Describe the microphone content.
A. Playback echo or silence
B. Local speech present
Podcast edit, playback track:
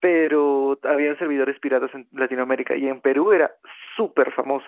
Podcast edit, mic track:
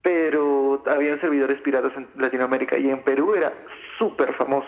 A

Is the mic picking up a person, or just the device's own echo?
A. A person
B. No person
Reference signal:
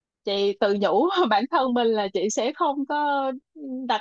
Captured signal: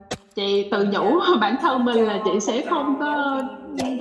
A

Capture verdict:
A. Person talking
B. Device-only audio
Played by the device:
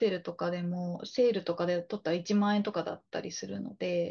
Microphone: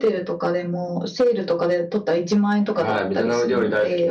A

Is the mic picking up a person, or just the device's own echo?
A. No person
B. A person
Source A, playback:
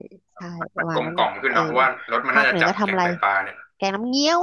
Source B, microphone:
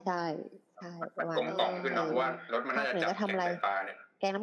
B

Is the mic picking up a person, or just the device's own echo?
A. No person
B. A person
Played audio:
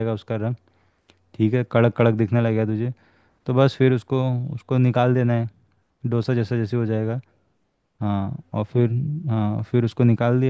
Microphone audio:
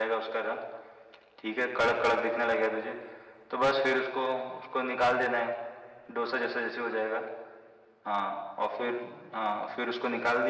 A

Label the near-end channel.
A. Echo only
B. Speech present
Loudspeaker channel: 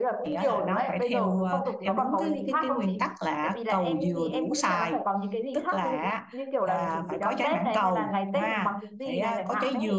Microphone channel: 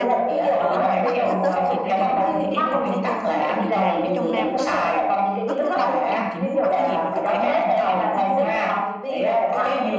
B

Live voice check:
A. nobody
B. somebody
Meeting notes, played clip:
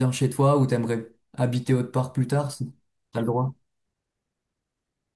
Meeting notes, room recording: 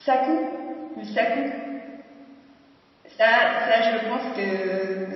B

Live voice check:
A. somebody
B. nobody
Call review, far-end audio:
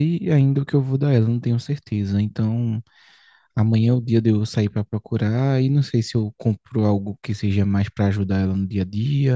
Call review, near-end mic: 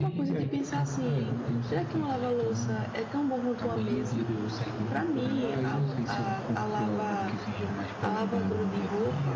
A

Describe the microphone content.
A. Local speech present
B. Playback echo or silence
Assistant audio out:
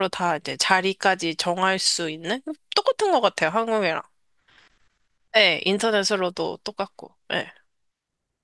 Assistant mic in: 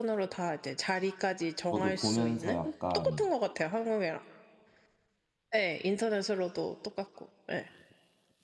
A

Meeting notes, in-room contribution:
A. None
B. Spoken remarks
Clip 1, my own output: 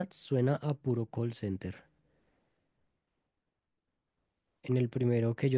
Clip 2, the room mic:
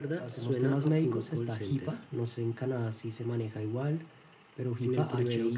B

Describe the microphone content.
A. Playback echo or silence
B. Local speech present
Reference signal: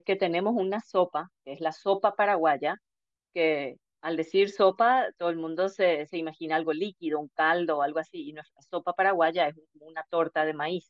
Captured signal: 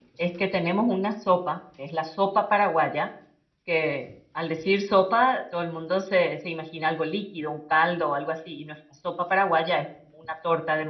A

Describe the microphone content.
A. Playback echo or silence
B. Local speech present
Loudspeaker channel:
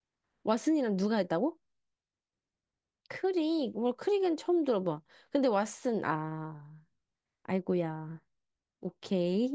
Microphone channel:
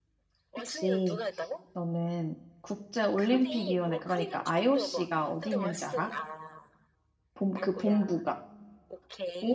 B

